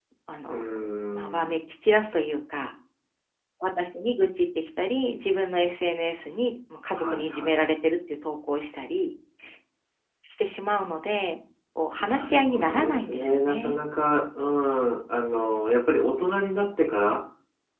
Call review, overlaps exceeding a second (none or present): present